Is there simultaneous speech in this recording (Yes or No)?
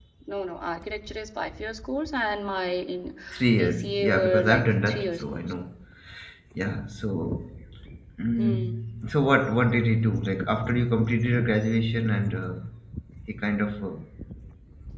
Yes